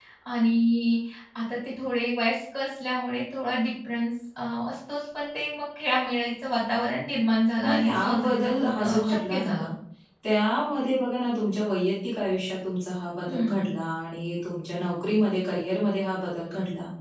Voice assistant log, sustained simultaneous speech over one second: present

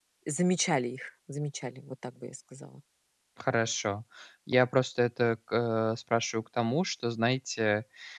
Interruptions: none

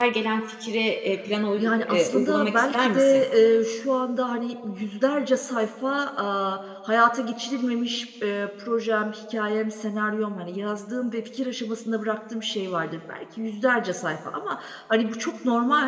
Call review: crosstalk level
present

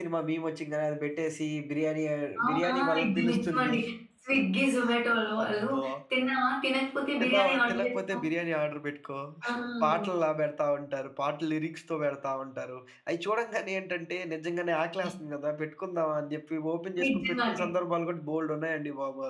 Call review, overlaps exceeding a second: present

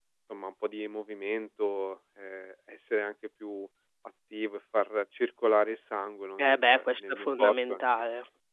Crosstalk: present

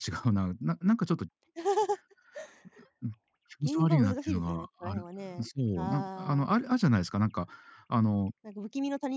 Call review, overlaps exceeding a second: present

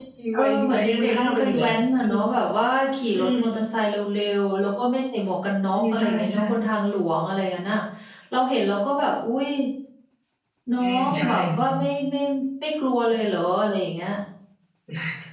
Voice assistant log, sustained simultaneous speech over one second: present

